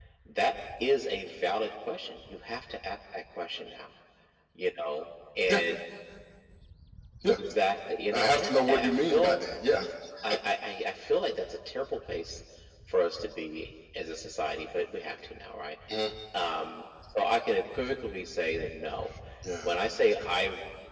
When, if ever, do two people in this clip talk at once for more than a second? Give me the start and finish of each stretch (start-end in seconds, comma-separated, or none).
8.1-9.4